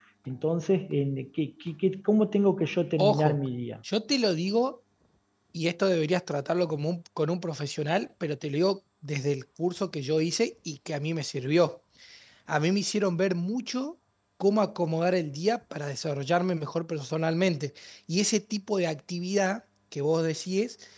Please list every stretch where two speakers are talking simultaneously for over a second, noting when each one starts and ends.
none

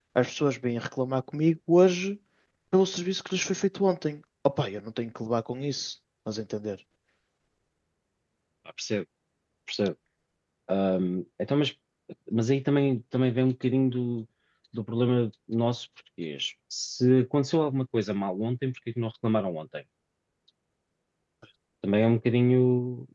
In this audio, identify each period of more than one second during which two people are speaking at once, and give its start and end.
none

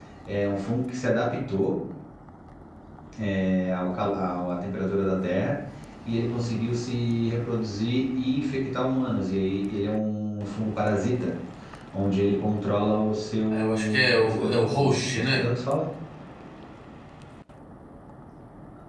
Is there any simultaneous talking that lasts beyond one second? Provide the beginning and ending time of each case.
13.5-15.5

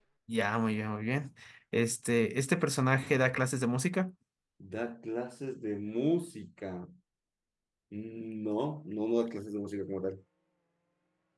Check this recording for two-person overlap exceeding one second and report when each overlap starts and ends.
none

